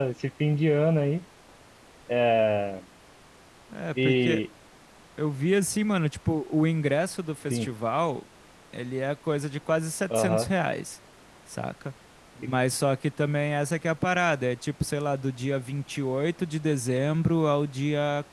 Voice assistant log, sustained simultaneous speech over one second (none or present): none